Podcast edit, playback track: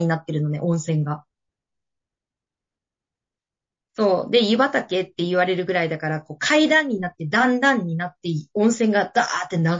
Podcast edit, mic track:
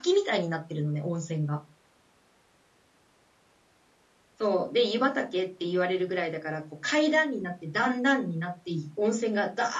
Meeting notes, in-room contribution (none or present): none